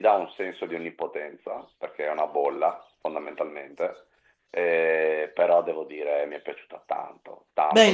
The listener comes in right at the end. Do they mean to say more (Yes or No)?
Yes